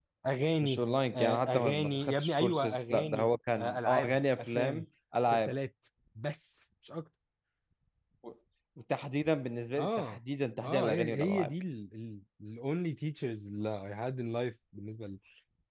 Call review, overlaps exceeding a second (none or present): present